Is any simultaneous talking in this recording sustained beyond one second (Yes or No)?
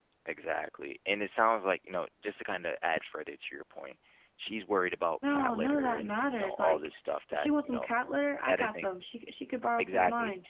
Yes